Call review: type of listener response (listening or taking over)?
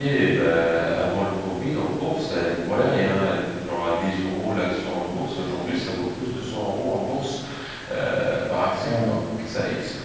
listening